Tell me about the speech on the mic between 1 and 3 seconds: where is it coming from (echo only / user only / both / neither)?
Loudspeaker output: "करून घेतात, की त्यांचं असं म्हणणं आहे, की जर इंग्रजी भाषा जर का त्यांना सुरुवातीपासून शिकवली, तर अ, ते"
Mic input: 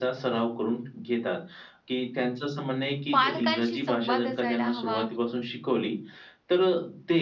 echo only